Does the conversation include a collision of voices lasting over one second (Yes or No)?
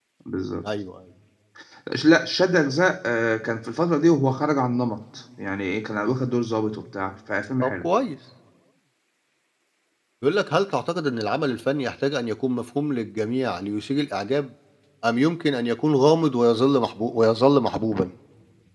No